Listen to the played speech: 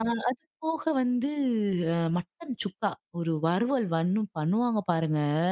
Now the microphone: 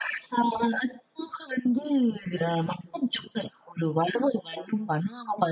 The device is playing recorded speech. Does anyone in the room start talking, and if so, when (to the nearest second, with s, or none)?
none